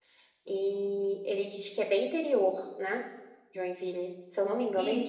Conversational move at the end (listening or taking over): taking over